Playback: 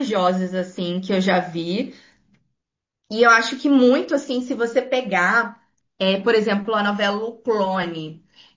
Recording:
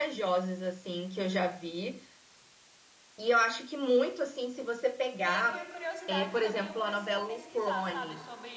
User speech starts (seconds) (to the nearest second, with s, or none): 5 s